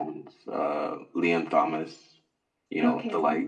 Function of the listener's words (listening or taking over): listening